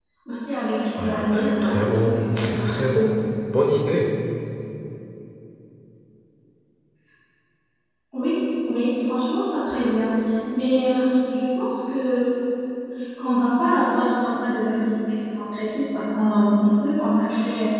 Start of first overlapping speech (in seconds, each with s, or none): 0.8 s